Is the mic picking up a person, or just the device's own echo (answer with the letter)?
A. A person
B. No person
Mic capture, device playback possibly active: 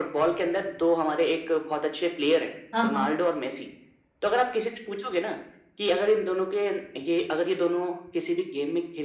A